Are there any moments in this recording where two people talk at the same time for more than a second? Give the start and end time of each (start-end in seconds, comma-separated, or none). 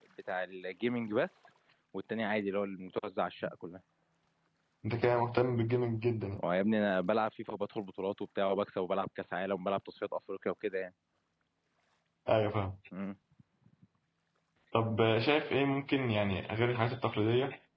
none